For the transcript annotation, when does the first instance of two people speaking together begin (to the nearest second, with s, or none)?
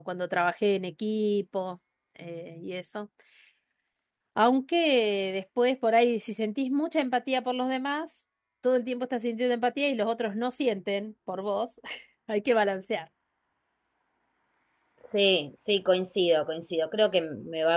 none